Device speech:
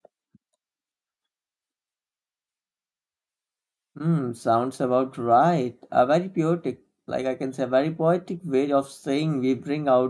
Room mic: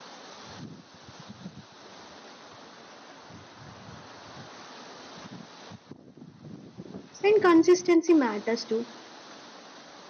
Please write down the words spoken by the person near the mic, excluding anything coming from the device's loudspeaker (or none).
and consistency matters too